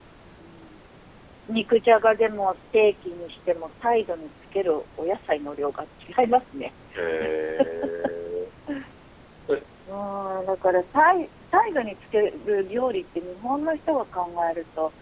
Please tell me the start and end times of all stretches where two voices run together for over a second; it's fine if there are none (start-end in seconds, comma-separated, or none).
none